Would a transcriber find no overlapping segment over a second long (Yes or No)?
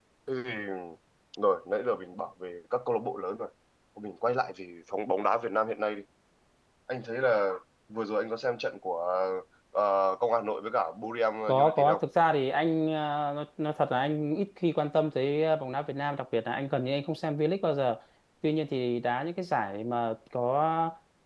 Yes